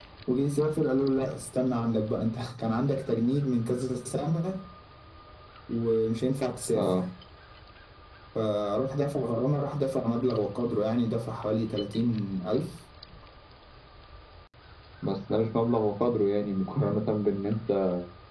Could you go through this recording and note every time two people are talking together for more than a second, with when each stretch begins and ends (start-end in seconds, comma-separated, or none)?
none